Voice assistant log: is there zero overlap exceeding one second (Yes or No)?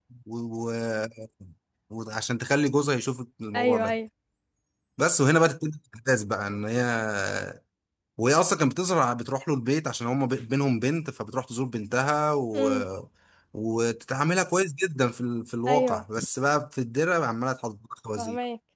Yes